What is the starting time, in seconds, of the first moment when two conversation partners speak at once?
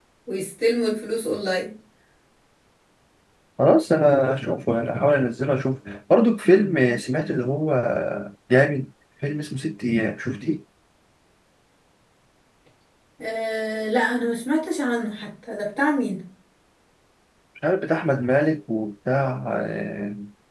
none

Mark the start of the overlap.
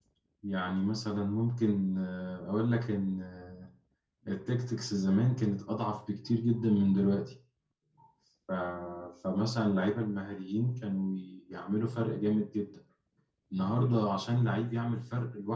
none

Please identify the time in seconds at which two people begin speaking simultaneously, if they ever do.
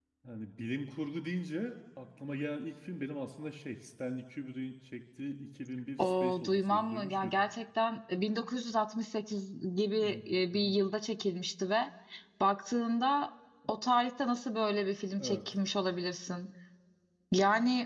6.0 s

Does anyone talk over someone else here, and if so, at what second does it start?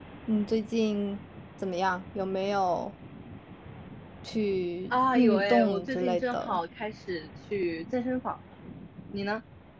4.9 s

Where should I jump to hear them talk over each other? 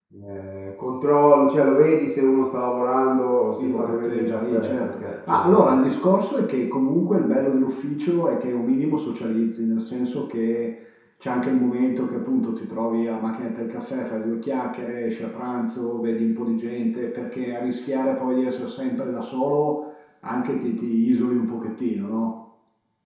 3.6 s

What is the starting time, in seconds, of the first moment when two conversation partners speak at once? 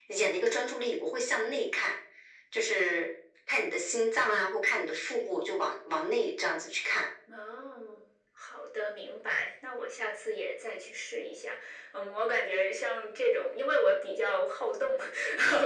none

